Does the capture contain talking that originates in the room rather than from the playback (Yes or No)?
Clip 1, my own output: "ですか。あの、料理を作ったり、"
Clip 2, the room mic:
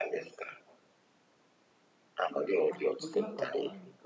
Yes